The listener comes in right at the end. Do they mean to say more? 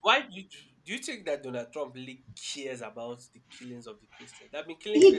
Yes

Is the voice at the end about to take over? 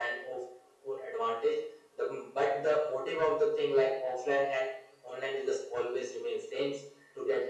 No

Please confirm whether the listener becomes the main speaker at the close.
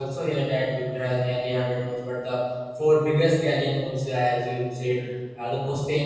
No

